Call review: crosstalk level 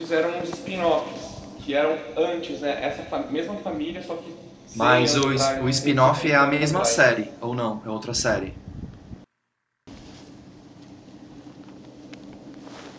present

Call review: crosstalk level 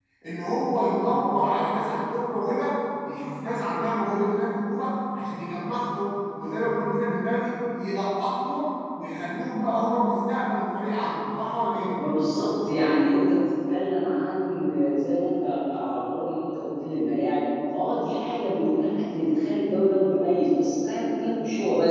none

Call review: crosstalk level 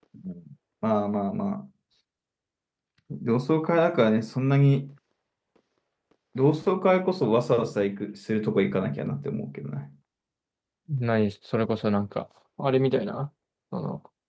none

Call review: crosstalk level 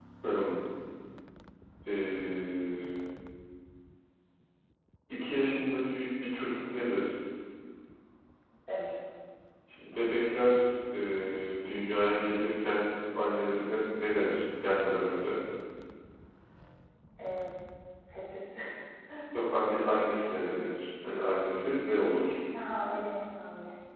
none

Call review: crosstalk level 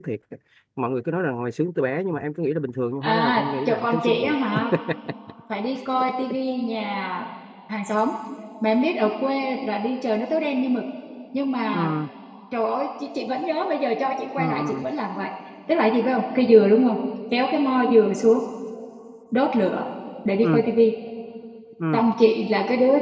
present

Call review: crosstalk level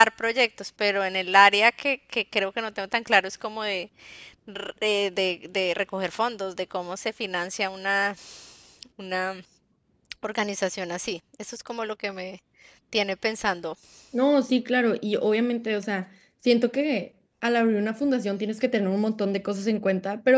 none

